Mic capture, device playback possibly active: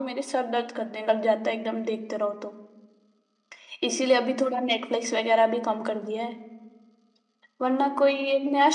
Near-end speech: none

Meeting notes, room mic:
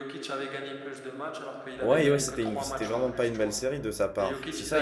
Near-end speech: present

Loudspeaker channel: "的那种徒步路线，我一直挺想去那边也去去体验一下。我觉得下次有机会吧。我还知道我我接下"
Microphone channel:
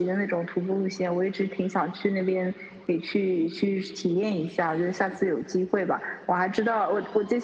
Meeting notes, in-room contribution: none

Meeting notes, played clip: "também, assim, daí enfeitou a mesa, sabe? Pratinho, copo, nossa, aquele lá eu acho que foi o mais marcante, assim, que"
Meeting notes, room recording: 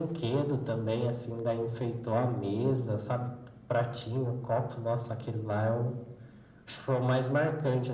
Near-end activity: none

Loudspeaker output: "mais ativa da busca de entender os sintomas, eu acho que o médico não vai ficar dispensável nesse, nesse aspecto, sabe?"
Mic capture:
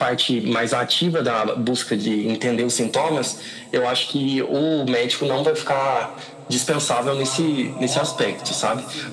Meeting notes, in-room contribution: present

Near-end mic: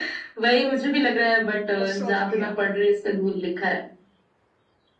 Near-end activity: present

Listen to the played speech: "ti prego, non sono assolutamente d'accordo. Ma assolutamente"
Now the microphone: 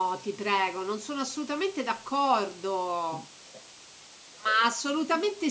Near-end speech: none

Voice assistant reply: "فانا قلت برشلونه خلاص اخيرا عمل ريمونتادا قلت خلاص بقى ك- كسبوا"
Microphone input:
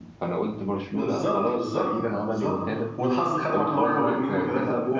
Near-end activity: present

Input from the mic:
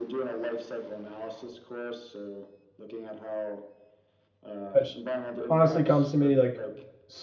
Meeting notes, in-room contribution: present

